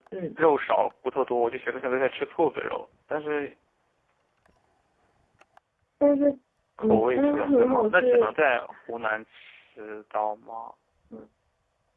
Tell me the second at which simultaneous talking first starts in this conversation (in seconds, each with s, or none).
6.8 s